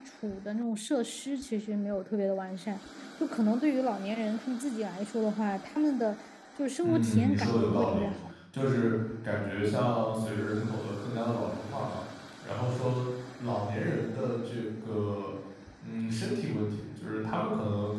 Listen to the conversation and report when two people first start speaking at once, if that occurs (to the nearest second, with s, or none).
7 s